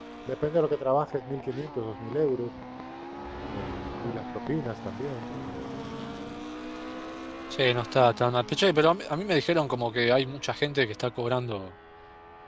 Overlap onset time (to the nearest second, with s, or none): none